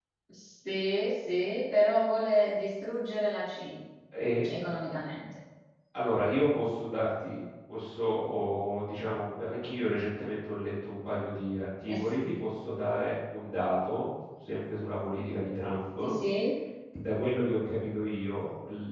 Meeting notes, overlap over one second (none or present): none